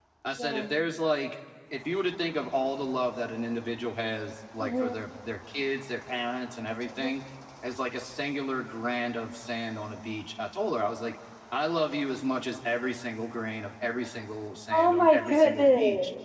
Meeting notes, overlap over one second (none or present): present